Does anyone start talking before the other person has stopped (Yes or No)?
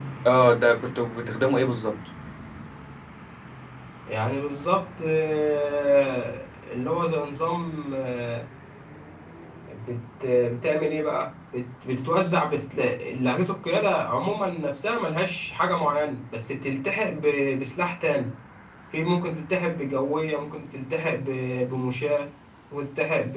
No